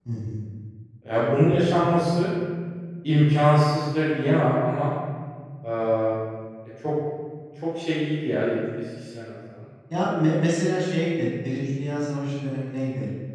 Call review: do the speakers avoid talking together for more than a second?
Yes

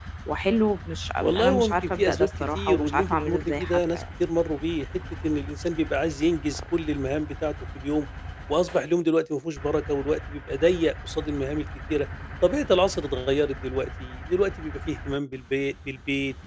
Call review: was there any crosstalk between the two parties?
Yes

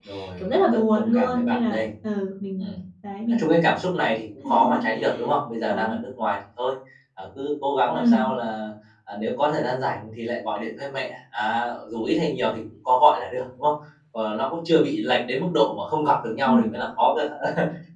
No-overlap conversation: No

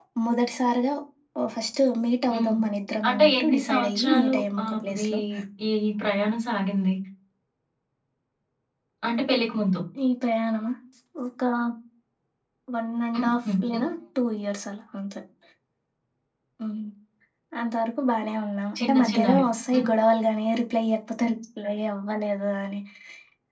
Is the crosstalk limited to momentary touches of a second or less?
No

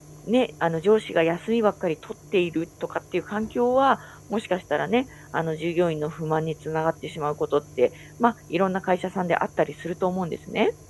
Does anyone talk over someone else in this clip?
No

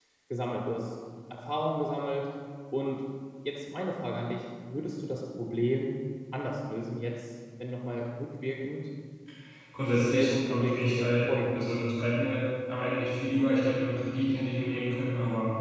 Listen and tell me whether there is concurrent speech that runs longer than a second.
Yes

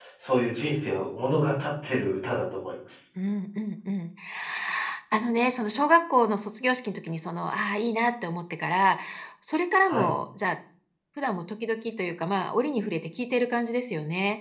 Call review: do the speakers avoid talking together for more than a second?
Yes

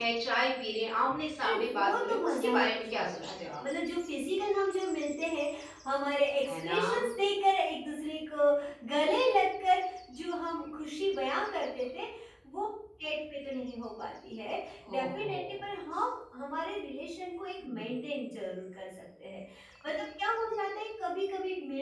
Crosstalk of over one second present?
Yes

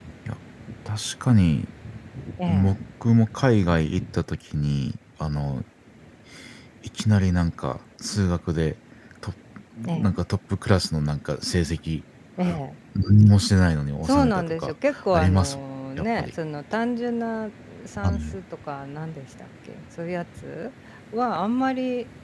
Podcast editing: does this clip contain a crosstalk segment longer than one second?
Yes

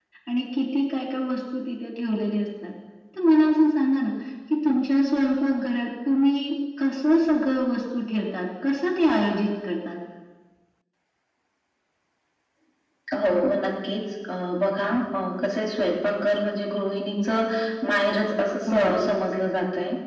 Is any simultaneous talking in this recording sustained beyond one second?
No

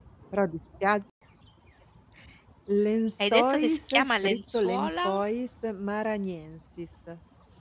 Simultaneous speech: Yes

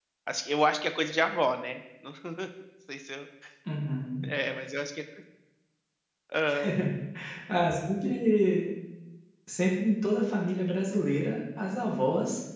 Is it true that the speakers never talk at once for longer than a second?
Yes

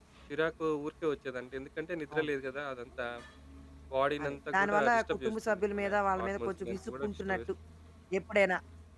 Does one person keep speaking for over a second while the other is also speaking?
Yes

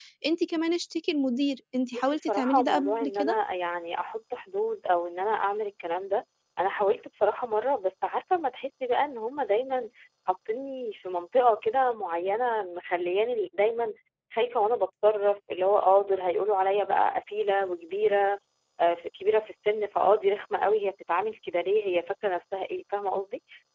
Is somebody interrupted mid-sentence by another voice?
Yes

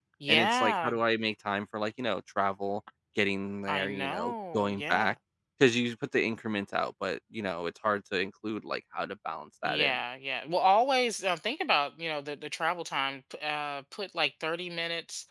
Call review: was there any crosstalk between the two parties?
Yes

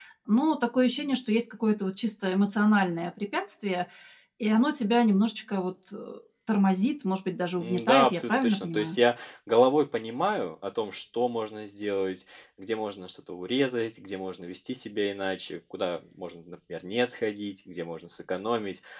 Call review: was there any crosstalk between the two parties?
Yes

